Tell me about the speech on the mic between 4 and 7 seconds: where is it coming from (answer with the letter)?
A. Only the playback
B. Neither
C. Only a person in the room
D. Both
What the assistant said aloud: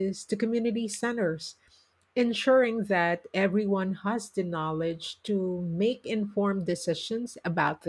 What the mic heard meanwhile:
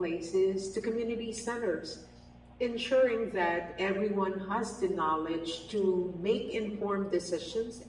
A